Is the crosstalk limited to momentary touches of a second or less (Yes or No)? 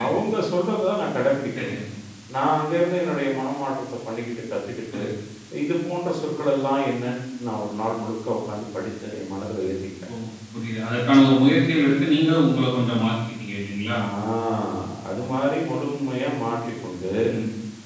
Yes